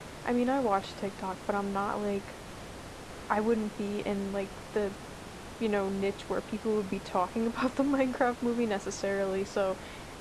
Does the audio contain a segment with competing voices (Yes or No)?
No